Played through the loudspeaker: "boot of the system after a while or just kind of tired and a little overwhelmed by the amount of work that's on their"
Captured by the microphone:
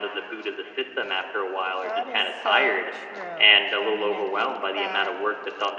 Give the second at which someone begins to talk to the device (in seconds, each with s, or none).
1.8 s